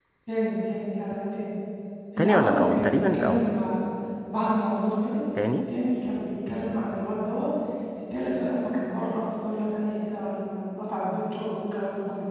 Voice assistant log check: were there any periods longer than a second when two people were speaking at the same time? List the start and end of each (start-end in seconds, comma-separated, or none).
2.2-3.5